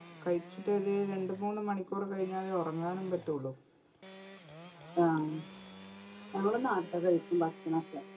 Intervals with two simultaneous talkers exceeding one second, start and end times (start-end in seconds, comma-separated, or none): none